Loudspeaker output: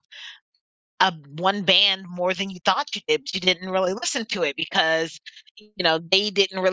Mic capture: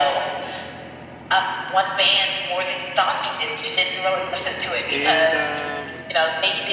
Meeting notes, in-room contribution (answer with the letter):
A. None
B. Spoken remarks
B